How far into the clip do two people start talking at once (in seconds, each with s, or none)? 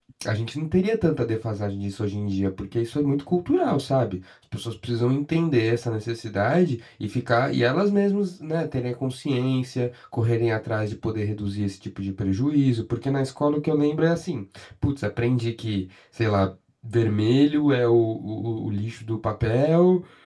none